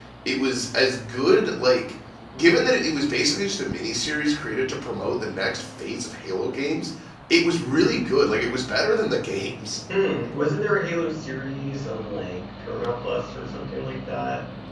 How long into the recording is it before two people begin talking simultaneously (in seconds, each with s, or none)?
none